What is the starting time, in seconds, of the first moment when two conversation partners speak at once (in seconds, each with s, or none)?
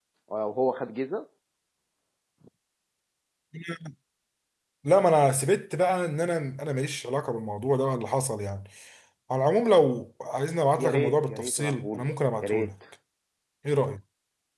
10.8 s